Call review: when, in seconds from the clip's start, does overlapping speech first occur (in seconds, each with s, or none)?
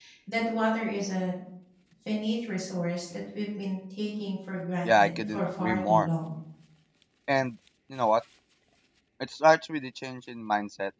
4.8 s